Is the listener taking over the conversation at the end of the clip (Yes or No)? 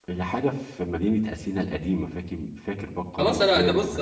Yes